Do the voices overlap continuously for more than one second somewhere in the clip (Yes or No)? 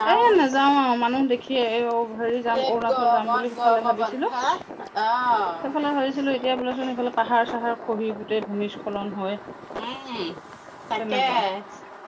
Yes